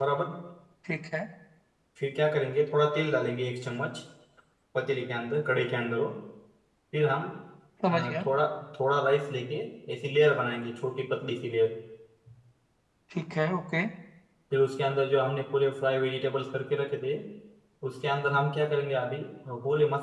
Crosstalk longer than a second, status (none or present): none